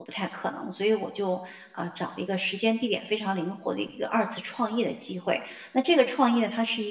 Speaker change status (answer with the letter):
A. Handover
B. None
B